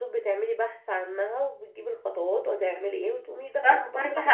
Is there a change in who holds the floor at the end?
Yes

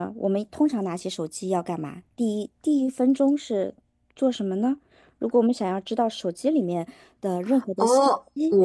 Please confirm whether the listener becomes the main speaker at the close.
Yes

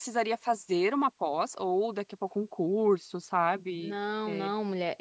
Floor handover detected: Yes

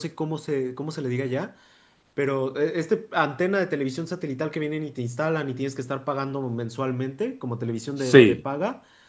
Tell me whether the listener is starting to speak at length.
No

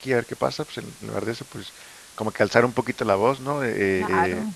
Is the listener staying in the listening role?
Yes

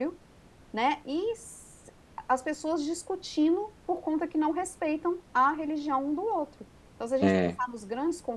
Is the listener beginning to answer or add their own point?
No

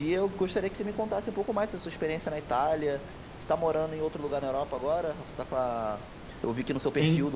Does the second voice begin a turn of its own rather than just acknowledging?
No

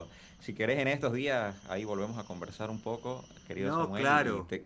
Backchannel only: Yes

